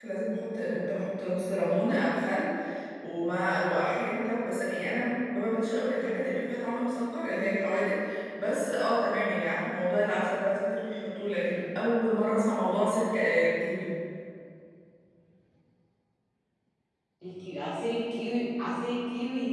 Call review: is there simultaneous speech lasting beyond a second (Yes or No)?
No